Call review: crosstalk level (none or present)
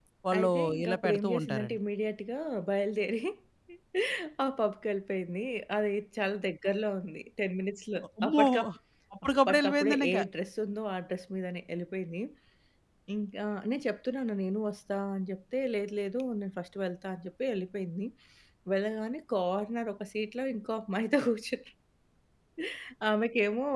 present